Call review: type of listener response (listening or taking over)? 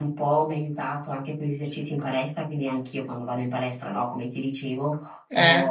listening